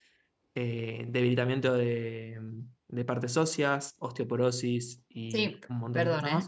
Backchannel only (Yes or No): No